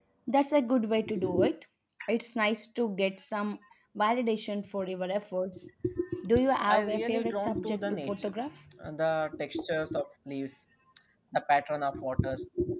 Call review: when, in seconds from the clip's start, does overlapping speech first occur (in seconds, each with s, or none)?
6.7 s